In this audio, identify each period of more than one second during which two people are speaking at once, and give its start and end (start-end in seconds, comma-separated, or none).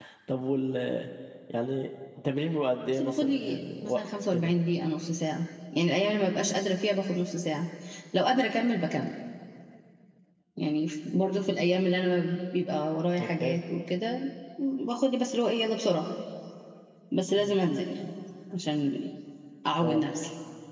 3.0-4.5